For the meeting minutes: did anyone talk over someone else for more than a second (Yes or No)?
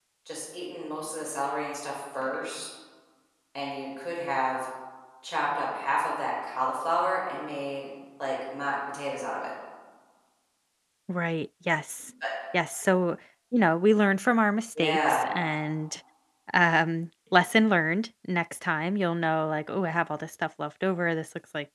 No